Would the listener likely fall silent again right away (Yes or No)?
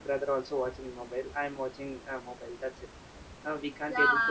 No